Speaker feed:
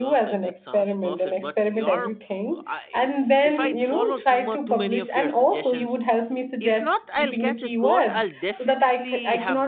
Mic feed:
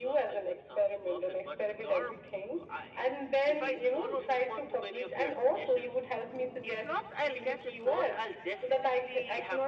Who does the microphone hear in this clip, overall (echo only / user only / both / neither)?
echo only